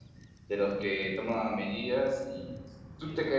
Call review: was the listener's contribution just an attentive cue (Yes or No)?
Yes